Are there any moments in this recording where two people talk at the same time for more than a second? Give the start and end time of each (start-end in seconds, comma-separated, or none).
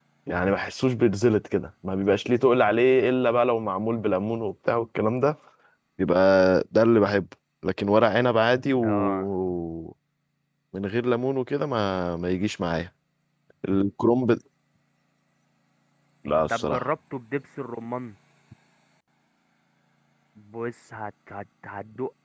none